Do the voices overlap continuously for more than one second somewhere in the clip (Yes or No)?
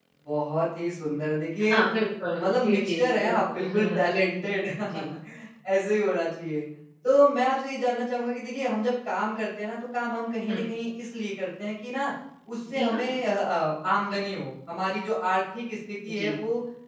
Yes